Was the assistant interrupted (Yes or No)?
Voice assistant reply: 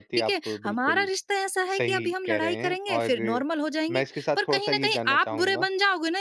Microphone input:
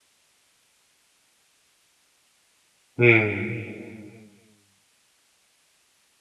Yes